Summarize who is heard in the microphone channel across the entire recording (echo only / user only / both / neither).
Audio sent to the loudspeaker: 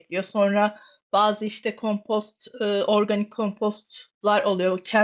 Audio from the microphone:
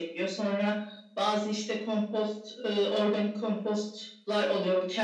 echo only